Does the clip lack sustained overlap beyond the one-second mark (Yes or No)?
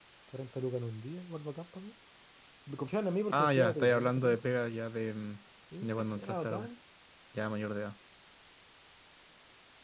No